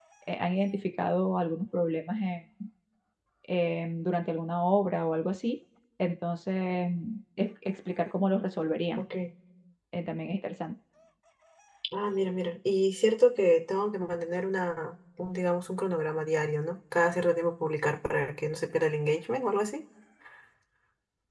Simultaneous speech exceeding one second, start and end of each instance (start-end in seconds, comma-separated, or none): none